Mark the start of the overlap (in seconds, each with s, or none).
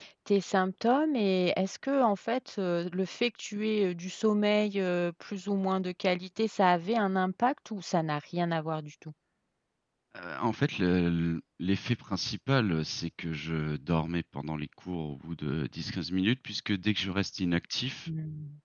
none